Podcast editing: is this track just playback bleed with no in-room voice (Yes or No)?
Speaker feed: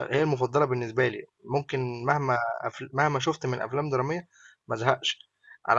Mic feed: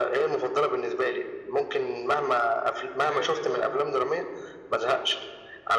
No